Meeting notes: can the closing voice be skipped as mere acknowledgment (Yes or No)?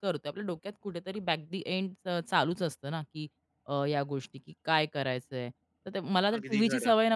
Yes